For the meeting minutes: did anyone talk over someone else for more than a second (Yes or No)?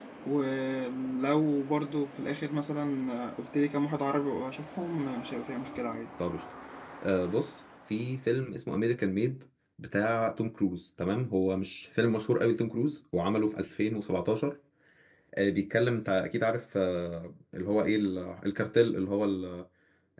No